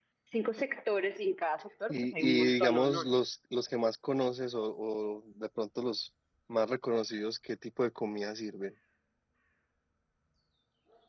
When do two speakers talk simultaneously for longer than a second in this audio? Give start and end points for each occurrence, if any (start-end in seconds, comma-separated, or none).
1.9-3.1